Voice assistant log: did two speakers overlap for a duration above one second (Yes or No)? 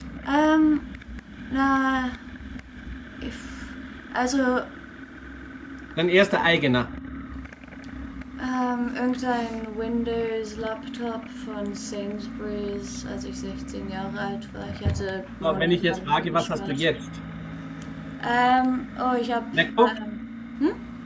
Yes